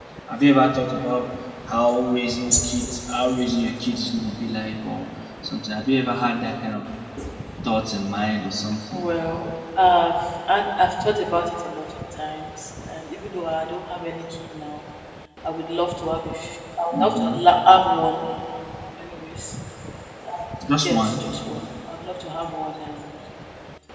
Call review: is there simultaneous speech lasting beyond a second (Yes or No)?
No